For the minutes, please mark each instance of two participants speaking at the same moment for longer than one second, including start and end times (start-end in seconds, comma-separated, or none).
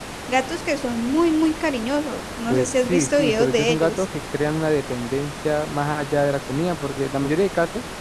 2.5-4.0